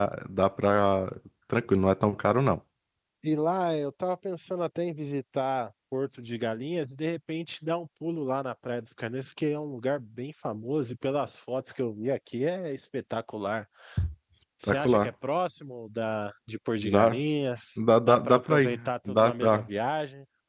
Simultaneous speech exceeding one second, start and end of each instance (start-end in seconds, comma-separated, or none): 17.8-19.7